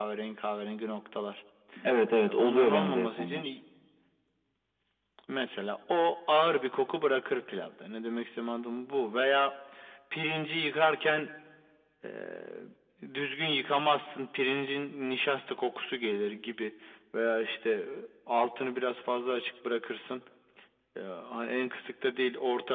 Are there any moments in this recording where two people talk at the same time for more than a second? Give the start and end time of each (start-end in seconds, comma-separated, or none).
2.2-3.4